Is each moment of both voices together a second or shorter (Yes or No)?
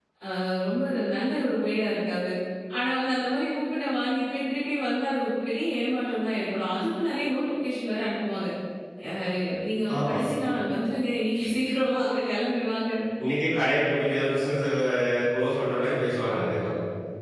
Yes